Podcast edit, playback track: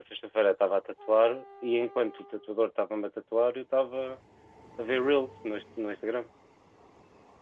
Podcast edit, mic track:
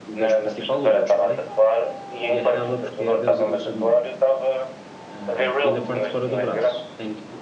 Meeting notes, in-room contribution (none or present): present